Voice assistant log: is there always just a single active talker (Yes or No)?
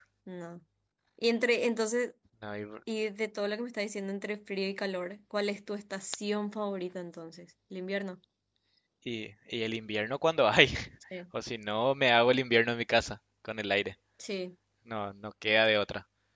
Yes